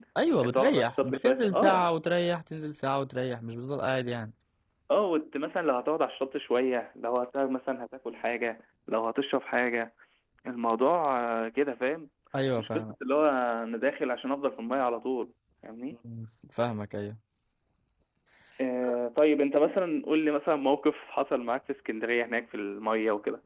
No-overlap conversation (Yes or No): No